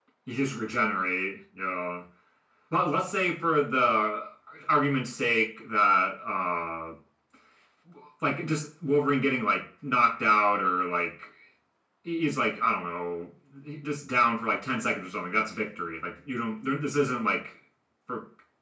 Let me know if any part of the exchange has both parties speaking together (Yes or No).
No